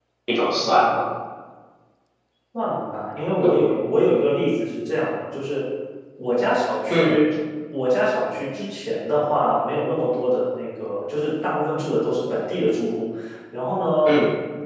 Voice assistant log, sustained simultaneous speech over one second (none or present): none